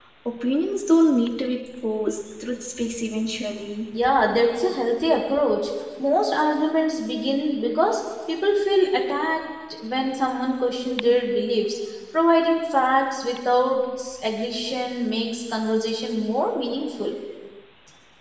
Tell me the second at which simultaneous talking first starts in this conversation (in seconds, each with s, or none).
none